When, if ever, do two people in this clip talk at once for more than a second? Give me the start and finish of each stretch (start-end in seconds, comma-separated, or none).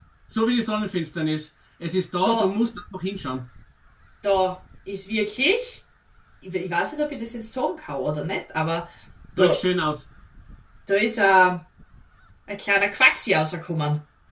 none